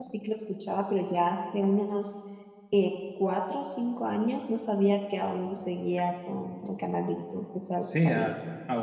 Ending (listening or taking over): taking over